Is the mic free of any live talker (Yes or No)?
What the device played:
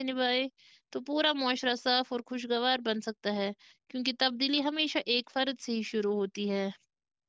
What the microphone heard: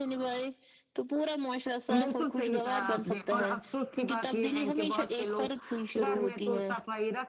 No